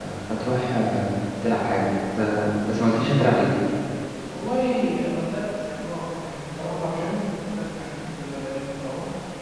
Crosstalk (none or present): none